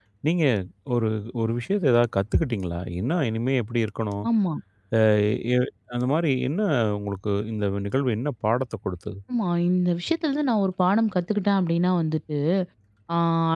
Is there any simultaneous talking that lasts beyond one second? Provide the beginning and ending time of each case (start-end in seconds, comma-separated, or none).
none